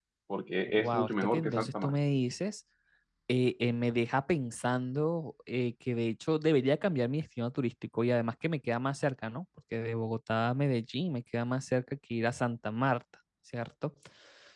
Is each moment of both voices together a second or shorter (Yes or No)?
No